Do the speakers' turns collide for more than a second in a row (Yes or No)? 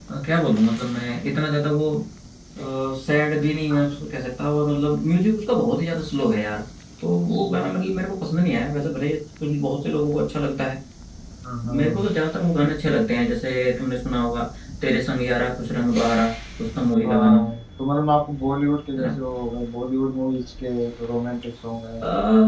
No